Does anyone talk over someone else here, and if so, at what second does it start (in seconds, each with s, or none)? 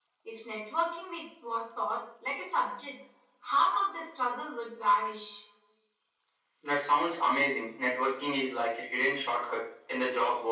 none